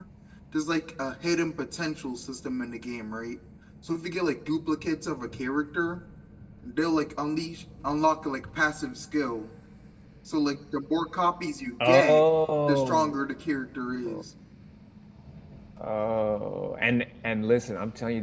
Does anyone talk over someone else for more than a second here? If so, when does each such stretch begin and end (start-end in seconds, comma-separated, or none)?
none